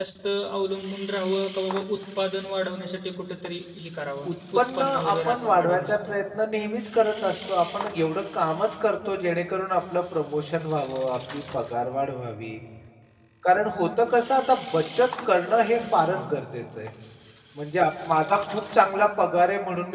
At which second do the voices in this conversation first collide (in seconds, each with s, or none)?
4.3 s